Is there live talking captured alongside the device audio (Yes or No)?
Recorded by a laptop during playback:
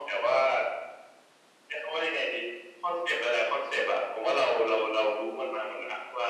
No